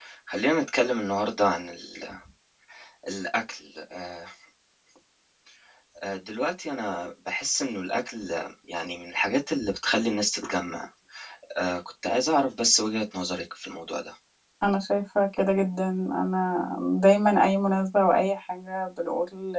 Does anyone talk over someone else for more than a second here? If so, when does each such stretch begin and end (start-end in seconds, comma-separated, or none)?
none